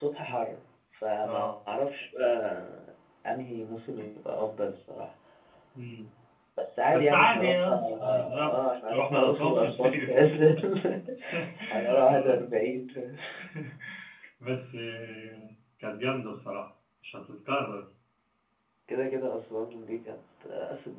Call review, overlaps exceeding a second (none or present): present